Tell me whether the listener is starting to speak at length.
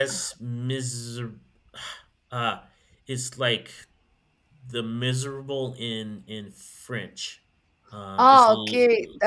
Yes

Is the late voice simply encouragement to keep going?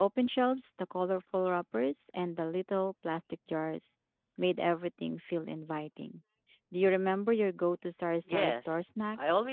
No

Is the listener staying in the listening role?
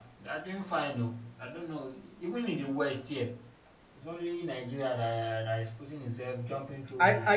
No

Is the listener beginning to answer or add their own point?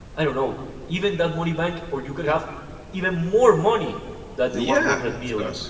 Yes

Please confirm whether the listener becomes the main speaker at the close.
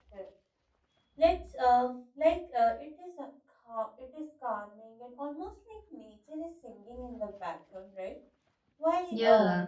No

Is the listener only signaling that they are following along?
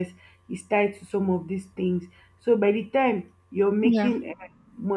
Yes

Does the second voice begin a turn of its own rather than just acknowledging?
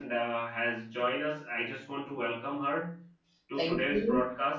No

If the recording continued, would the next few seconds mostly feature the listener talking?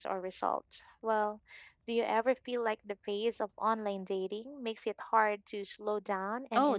Yes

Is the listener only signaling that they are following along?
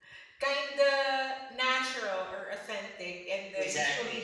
Yes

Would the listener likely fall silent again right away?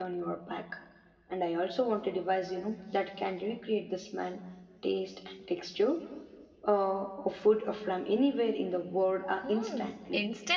No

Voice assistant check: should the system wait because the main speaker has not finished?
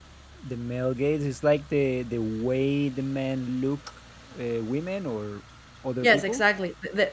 No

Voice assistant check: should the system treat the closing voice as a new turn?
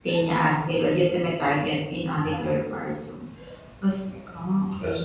No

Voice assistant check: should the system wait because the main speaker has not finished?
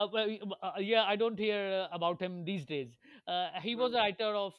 Yes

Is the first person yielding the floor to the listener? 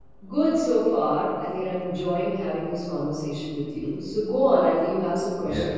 Yes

